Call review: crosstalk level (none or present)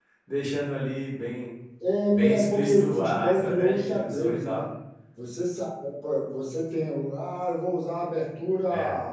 present